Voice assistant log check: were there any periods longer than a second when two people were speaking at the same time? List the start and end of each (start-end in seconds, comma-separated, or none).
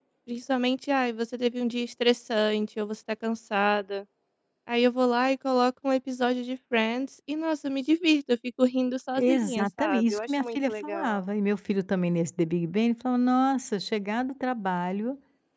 9.2-11.2